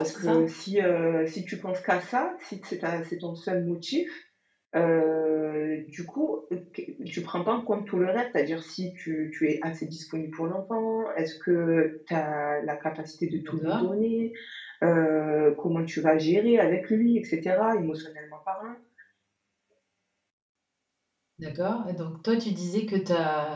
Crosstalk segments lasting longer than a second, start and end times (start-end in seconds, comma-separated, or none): none